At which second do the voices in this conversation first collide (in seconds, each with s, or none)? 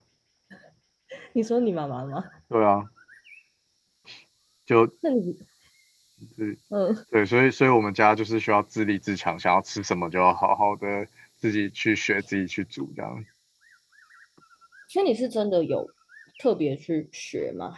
none